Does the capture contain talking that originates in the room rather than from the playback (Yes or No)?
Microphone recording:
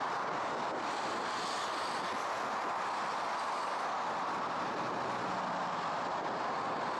No